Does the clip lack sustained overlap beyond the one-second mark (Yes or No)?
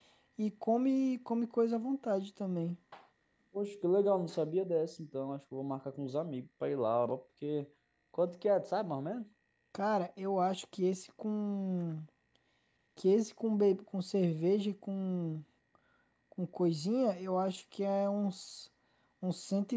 Yes